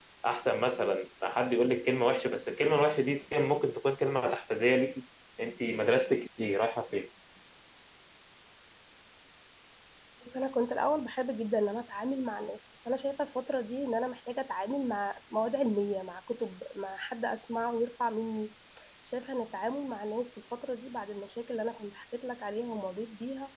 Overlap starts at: none

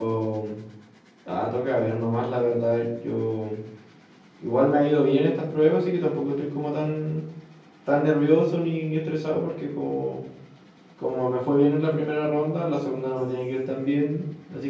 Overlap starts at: none

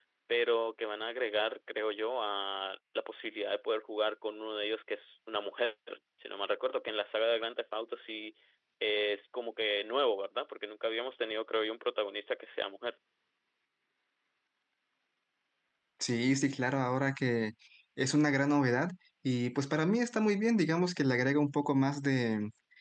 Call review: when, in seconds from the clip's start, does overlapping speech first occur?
none

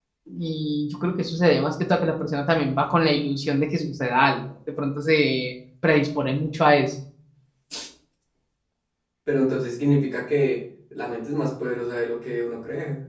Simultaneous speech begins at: none

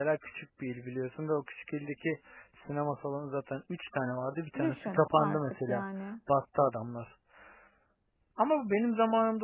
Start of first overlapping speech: 4.5 s

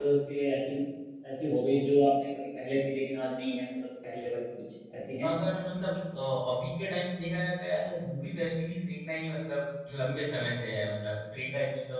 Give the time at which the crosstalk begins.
none

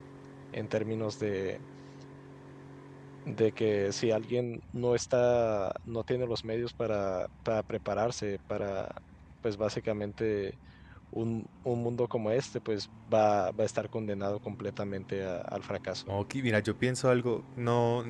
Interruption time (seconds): none

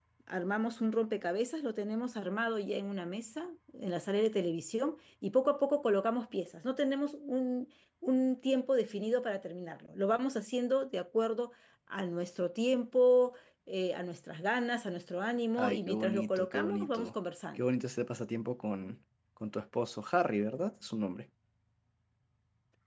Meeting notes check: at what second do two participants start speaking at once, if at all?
15.6 s

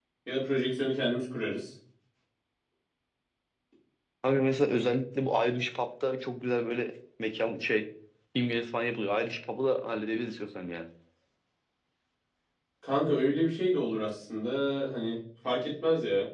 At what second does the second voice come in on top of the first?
none

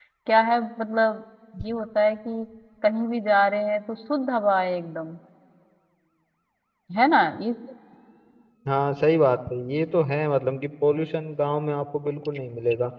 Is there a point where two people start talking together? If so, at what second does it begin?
none

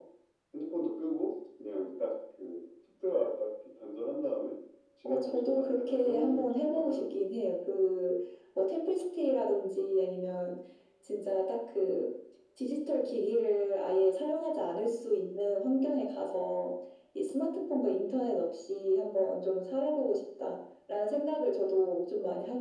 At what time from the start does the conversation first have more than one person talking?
5.0 s

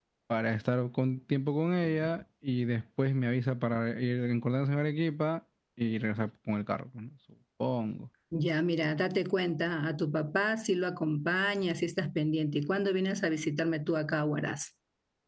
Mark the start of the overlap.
none

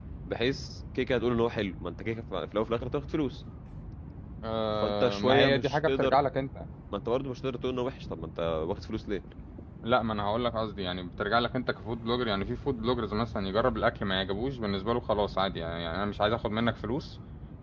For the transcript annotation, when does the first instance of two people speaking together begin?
4.8 s

